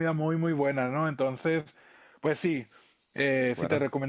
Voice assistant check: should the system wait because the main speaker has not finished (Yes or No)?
Yes